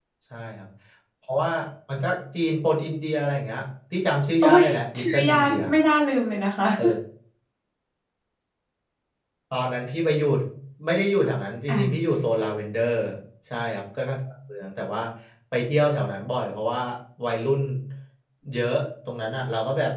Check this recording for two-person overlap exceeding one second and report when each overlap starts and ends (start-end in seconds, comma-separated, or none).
4.4-5.7